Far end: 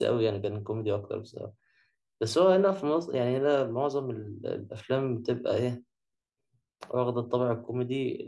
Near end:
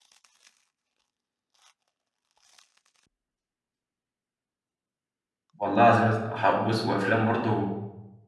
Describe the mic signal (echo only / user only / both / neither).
user only